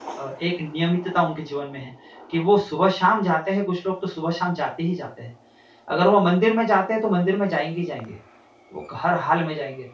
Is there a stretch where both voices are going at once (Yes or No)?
No